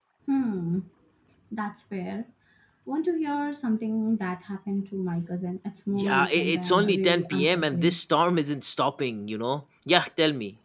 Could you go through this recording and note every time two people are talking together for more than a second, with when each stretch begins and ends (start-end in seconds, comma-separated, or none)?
6.0-8.0